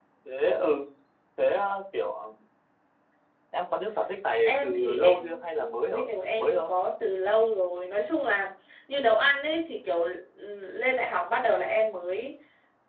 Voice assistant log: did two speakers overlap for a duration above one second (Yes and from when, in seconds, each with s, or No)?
Yes, from 4.5 s